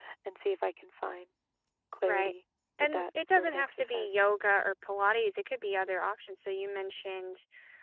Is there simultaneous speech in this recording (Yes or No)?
Yes